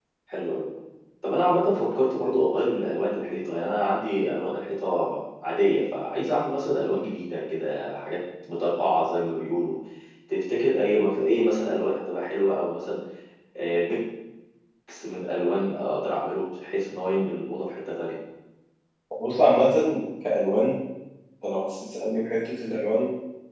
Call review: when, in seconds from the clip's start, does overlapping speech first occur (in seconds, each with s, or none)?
none